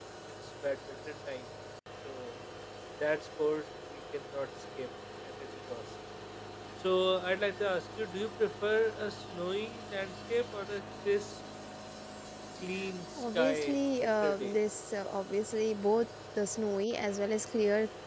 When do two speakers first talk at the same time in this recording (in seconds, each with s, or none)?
13.2 s